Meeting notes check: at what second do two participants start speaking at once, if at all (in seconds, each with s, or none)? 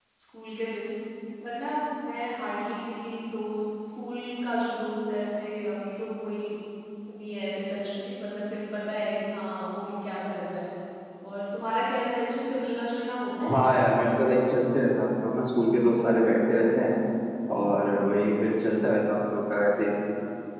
none